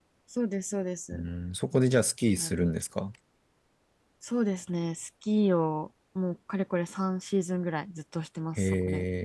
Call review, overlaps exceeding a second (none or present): none